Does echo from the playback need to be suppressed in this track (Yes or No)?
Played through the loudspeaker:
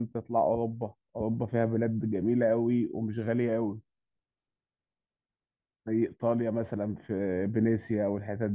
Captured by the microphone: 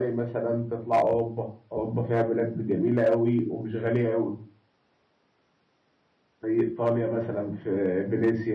Yes